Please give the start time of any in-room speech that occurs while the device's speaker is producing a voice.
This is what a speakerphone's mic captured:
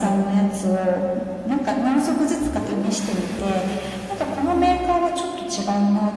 none

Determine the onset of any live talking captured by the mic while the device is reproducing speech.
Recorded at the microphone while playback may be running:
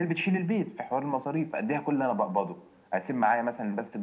none

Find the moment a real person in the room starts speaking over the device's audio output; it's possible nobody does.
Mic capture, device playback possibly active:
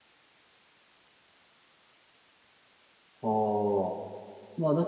3 s

